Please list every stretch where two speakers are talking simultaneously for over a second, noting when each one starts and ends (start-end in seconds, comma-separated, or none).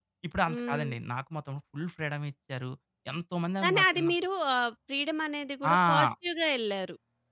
none